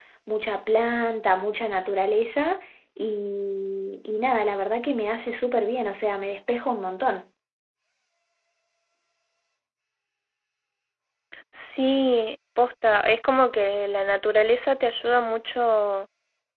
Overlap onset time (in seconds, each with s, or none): none